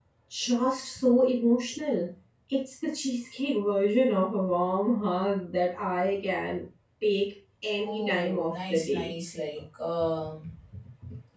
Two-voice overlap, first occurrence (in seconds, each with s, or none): 7.9 s